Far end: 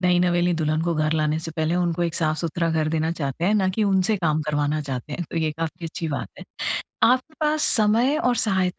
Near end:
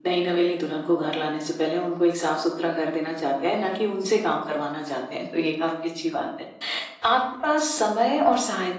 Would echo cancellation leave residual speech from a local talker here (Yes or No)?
No